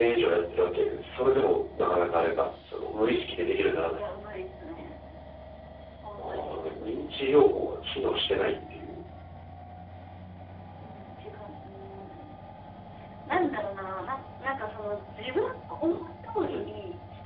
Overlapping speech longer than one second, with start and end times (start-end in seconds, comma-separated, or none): none